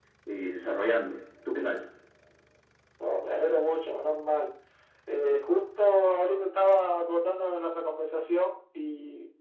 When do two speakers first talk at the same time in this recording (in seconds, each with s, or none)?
none